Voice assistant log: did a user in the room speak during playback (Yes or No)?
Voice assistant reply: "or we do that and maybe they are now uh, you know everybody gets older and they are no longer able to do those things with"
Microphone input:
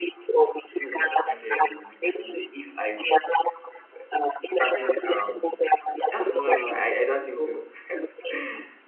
Yes